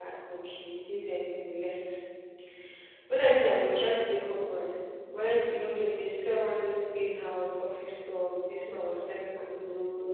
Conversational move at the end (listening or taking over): listening